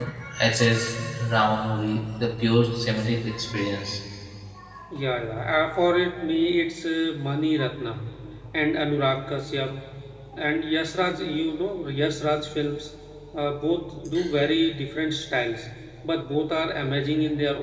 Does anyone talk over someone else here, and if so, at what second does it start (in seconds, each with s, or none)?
none